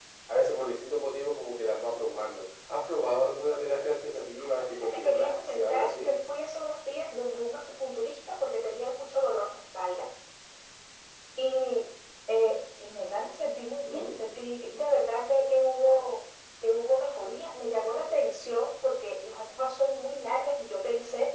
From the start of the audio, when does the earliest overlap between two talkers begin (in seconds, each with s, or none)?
4.4 s